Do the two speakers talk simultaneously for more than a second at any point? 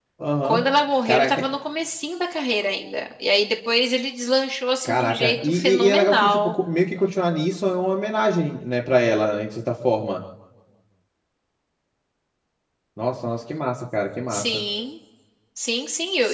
Yes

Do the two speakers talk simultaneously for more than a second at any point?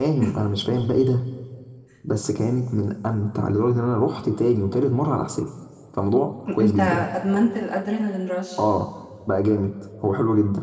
No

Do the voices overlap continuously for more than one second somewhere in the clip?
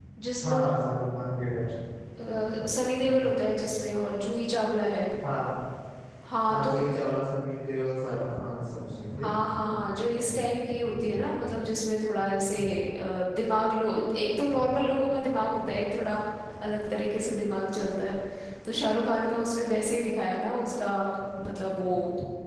No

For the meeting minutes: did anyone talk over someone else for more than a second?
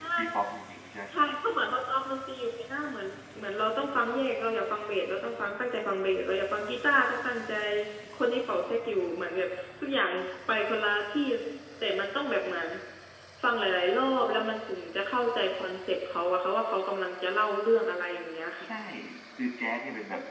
No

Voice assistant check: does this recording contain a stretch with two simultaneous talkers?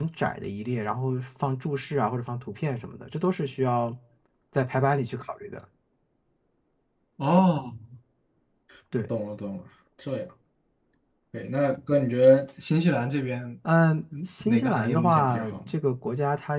Yes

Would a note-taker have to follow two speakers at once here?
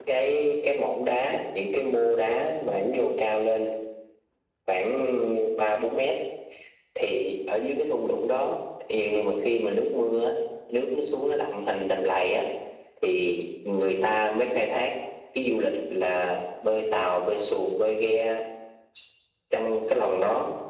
No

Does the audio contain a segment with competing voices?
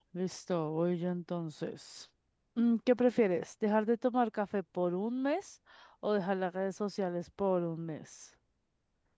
No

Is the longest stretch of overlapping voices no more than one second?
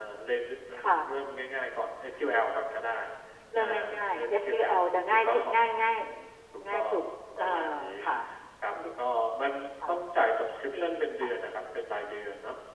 No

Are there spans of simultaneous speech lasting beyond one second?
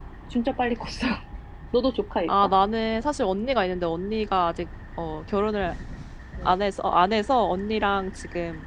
No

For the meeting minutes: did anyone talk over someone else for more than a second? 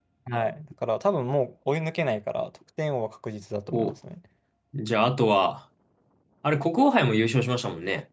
No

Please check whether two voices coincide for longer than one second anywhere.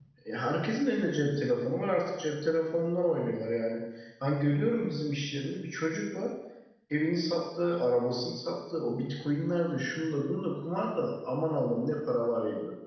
No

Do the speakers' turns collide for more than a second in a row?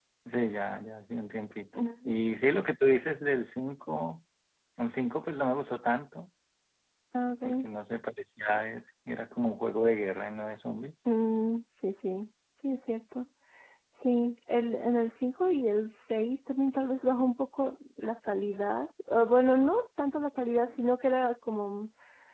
No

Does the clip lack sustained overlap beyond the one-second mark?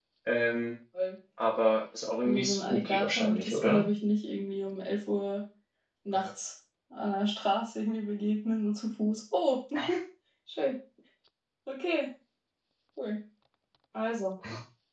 No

